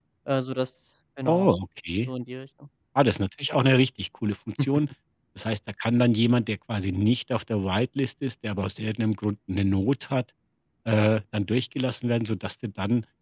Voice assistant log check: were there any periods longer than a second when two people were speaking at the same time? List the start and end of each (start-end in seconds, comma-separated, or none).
none